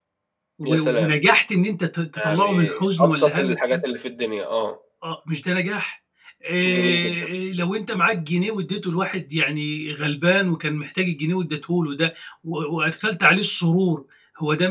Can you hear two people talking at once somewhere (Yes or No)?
Yes